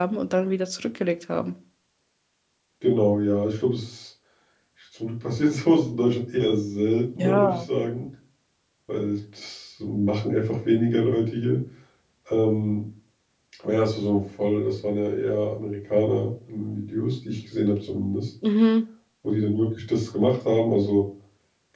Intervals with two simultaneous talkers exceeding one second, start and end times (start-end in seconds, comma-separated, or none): none